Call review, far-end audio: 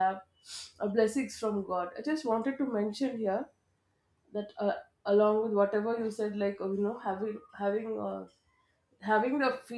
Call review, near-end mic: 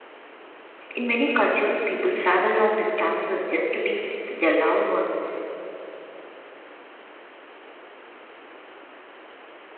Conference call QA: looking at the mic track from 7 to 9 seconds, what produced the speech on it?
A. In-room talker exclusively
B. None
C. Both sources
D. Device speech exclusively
B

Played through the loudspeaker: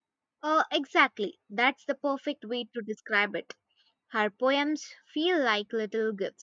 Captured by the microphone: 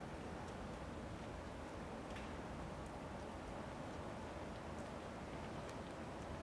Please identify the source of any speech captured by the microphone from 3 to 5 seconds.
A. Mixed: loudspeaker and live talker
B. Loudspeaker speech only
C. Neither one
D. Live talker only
C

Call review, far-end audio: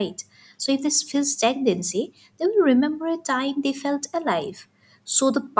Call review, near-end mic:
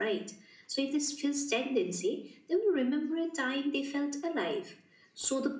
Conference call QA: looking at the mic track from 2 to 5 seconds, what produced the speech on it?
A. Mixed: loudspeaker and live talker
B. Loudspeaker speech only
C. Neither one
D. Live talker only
B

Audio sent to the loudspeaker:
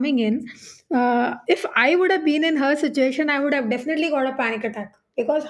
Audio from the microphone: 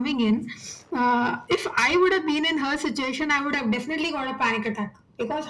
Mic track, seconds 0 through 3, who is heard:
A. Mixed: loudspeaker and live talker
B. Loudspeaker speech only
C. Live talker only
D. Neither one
B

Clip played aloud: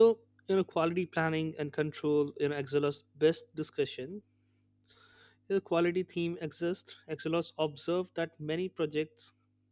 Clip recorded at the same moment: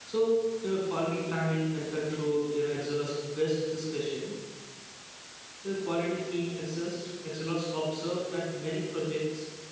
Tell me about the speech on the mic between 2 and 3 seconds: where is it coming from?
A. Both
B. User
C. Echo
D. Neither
C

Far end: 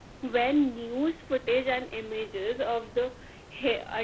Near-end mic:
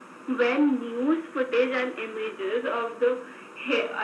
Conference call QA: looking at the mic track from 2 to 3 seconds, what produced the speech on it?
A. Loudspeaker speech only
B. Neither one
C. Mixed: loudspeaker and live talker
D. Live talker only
A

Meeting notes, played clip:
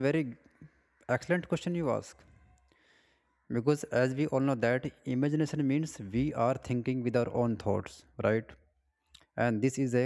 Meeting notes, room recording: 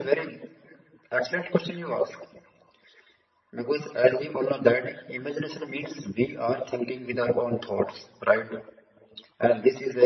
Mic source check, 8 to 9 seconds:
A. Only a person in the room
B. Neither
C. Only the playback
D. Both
C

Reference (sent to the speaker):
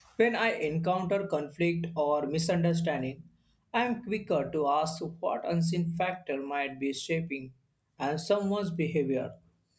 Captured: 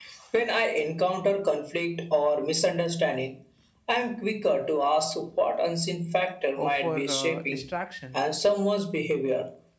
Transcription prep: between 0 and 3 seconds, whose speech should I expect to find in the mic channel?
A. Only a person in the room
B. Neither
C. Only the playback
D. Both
C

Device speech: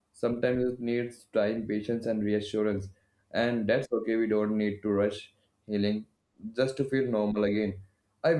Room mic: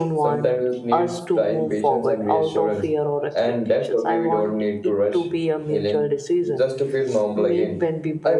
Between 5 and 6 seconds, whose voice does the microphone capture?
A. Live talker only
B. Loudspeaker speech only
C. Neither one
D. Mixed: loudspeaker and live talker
D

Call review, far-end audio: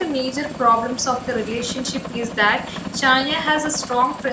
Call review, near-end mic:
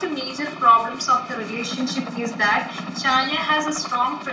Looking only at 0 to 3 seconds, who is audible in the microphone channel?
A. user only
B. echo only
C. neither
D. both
B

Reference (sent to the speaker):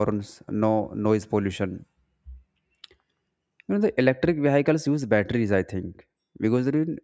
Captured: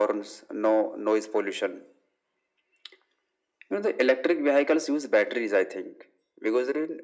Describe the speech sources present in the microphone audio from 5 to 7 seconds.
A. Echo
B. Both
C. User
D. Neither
A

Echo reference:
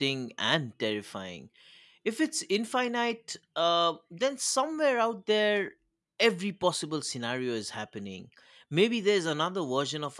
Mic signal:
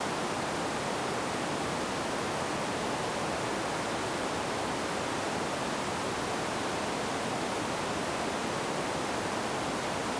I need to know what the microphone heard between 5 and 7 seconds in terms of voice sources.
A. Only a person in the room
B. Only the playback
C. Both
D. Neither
D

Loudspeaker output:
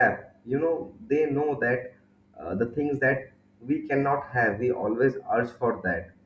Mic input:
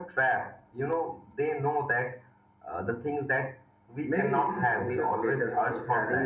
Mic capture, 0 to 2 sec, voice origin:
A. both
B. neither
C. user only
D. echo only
D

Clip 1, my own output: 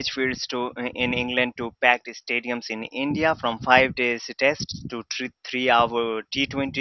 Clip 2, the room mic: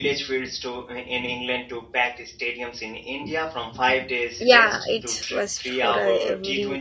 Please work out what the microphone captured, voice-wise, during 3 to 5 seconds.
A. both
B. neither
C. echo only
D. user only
A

